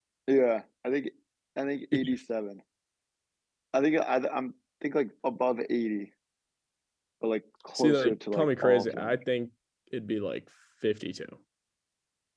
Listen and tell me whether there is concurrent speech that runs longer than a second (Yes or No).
Yes